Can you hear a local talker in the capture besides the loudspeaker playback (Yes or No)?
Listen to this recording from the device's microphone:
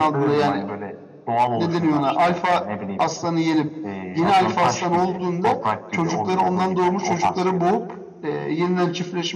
No